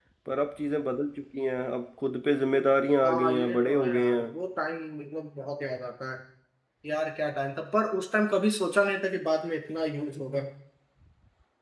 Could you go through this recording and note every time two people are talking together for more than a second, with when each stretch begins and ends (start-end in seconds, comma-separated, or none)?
3.0-4.2